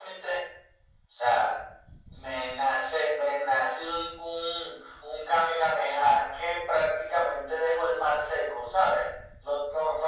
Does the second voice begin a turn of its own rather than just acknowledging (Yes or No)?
Yes